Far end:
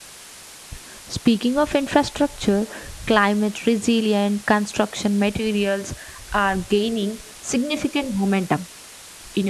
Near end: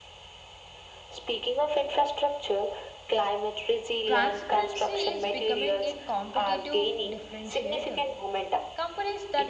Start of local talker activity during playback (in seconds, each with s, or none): 4.0 s